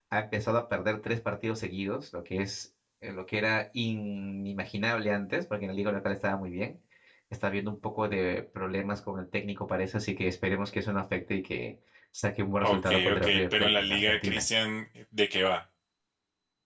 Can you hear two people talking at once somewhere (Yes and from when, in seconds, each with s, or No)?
Yes, from 12.6 s